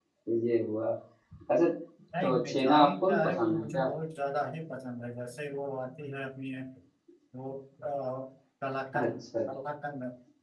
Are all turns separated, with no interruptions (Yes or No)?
No